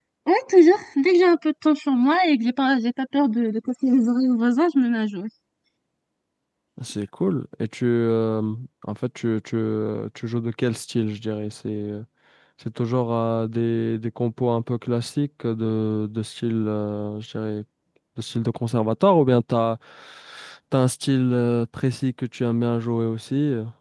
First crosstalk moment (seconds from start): none

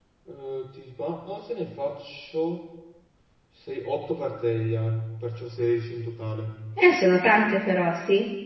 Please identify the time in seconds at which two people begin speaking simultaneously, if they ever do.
none

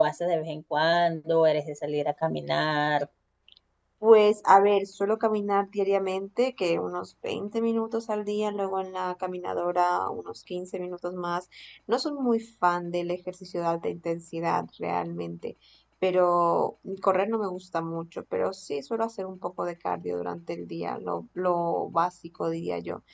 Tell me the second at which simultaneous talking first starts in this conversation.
none

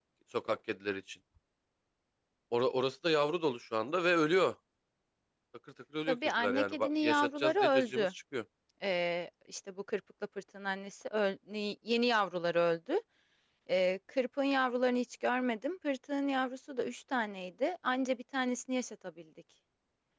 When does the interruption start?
6 s

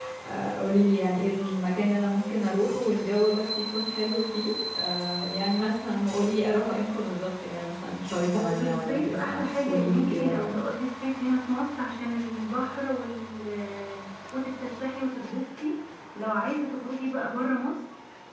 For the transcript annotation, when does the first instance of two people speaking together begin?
8 s

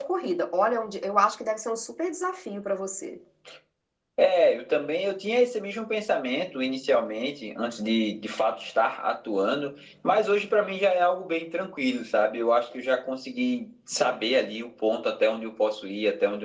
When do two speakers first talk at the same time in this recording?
none

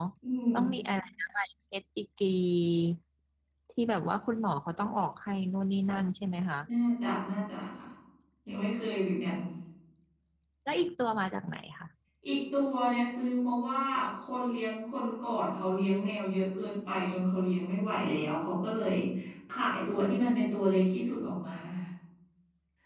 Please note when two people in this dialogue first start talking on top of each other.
none

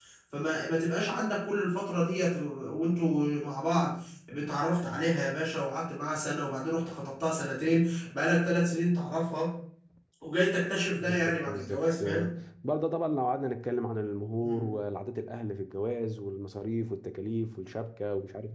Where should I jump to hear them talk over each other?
11 s

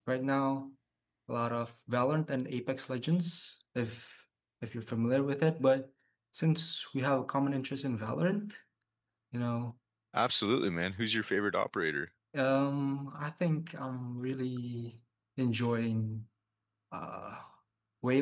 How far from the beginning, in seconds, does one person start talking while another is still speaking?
none

